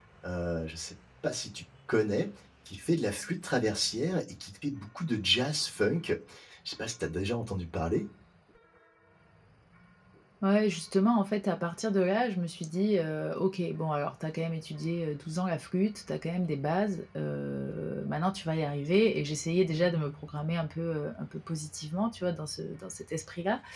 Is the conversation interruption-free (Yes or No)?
Yes